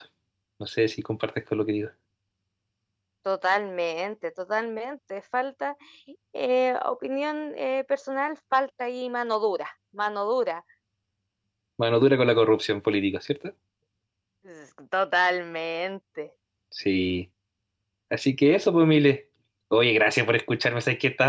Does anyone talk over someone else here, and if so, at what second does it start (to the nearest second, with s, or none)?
none